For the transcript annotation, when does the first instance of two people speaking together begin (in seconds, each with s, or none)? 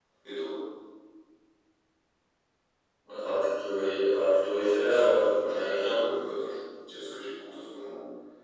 4.4 s